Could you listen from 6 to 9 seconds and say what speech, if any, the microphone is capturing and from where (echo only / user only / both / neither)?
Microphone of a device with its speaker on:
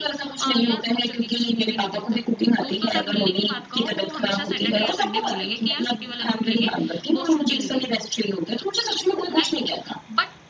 both